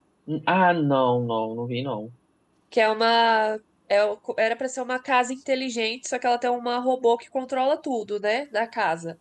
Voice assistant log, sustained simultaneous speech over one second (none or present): none